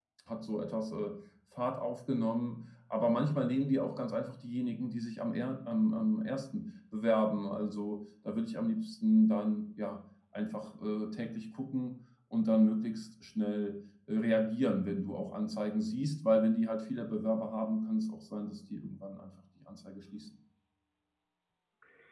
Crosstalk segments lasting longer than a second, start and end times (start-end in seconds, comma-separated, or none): none